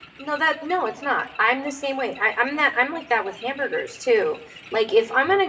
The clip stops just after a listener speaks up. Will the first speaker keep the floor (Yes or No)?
Yes